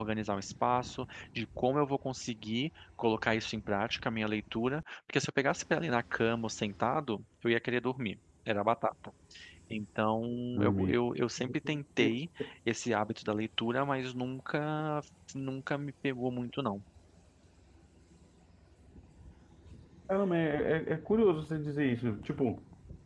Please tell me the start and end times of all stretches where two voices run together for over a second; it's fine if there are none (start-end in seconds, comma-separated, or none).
none